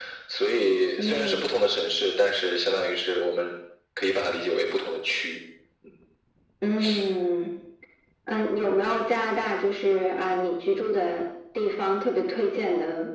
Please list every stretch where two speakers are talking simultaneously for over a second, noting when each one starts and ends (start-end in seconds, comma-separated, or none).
none